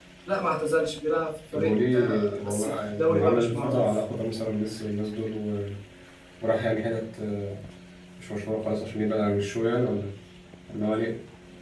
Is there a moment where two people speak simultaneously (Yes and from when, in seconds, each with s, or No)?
Yes, from 1.5 s